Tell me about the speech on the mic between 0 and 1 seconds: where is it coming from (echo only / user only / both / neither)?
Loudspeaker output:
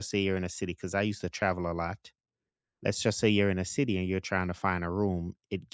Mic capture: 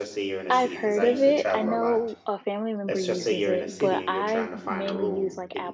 both